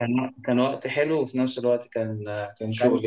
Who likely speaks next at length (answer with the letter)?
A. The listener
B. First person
A